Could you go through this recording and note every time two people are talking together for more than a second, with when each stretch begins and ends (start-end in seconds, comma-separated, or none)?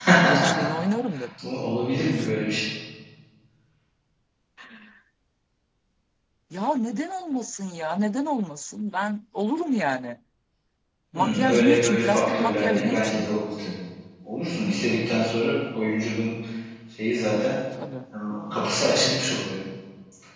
11.1-13.2